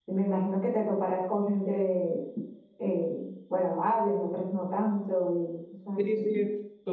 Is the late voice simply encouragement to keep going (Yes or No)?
No